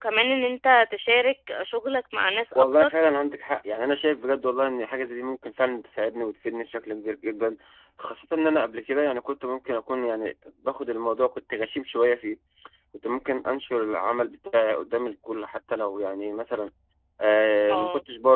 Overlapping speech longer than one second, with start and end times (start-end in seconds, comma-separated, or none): none